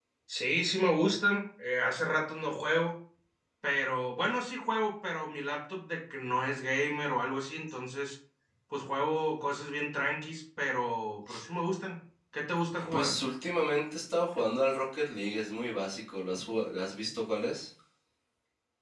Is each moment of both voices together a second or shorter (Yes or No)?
Yes